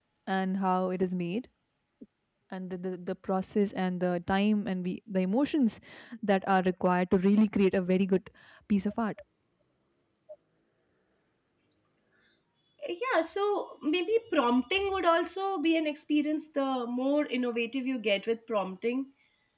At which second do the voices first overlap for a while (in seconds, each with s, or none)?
none